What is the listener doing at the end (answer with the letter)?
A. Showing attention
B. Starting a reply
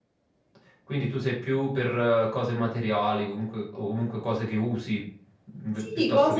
B